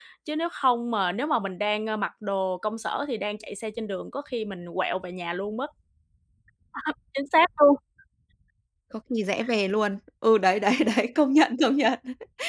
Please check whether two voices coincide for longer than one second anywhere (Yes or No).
No